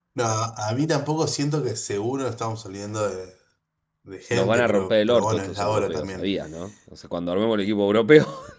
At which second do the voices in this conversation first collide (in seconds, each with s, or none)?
4.3 s